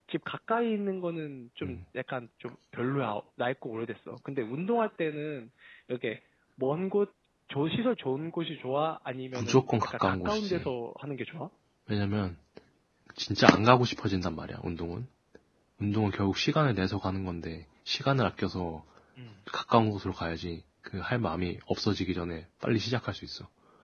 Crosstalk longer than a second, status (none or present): present